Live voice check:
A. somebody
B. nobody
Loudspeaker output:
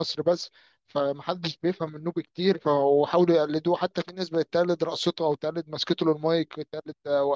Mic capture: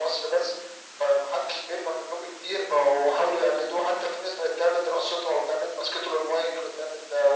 B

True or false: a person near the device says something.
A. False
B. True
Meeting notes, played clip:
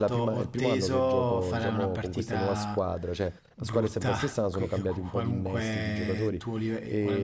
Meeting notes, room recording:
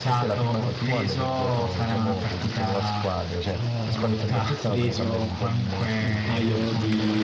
B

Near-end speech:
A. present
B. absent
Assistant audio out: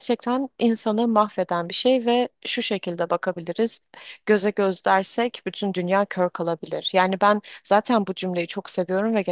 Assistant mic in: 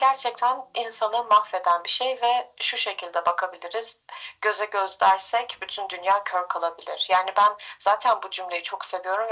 B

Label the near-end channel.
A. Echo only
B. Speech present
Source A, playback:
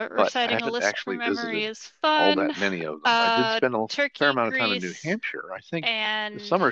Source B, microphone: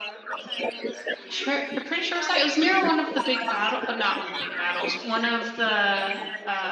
B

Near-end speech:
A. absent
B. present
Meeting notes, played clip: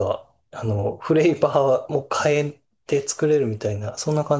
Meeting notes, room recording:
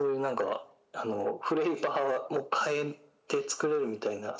A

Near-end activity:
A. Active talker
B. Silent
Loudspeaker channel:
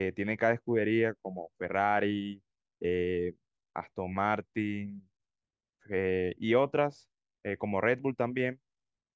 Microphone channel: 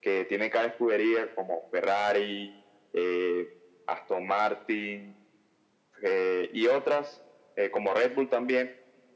B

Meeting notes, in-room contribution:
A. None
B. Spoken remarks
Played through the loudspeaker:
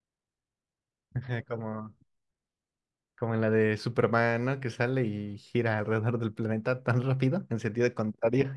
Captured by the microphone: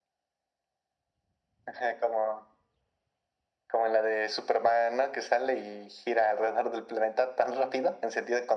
A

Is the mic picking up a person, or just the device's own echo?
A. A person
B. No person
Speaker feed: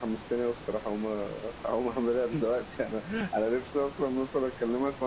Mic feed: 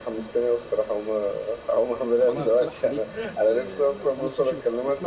A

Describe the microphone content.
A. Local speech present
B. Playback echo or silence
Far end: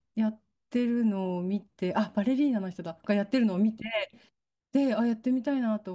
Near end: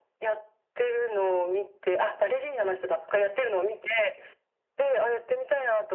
B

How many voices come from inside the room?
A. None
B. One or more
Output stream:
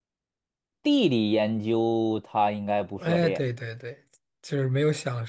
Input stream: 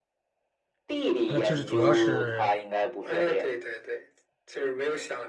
B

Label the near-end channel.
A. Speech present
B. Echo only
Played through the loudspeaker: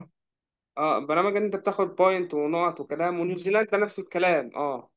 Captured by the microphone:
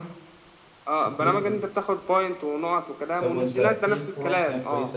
A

